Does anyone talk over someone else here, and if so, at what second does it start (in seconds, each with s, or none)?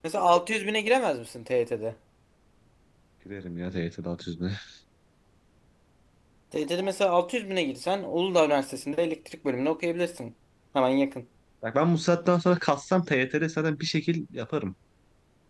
none